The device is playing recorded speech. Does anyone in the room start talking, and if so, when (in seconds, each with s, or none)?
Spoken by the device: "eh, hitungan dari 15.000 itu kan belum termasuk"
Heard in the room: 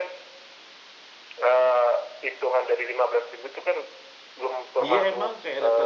4.8 s